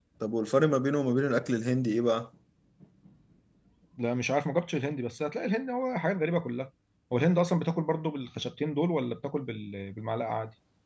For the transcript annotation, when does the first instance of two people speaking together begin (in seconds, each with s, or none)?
none